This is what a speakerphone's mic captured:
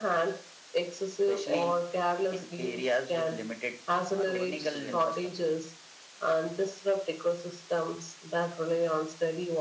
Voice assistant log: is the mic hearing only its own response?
No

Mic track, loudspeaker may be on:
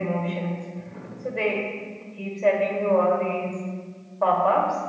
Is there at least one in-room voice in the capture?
No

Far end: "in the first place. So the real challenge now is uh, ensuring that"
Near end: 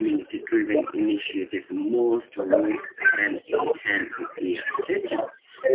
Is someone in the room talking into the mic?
Yes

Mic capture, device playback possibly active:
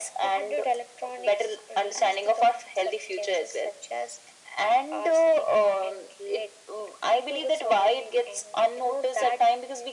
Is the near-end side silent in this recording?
Yes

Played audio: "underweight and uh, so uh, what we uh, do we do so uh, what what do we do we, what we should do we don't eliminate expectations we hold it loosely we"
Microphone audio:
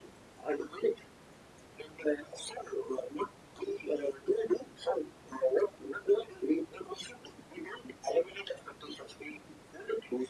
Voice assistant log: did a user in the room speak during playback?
No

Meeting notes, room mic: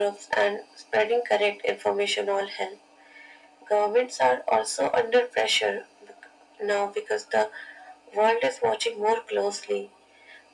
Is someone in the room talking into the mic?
No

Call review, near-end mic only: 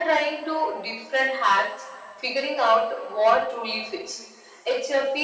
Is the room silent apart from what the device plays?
Yes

